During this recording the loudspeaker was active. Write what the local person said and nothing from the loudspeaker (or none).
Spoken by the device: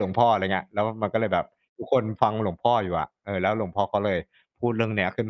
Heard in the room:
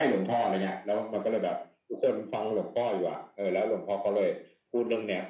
none